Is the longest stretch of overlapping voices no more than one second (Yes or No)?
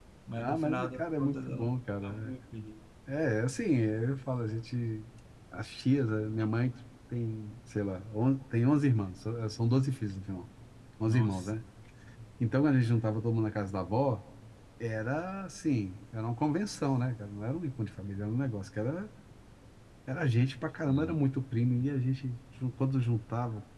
No